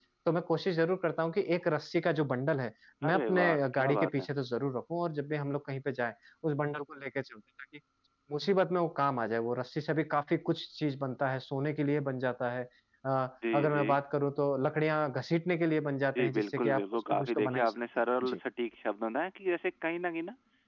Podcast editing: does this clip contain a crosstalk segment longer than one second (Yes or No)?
Yes